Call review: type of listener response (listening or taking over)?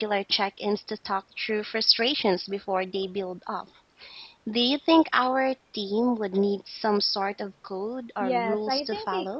taking over